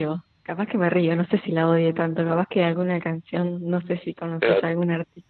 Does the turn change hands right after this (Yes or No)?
No